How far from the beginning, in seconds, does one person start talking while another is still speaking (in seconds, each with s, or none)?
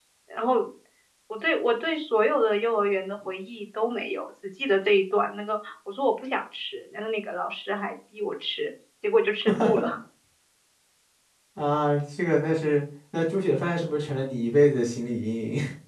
none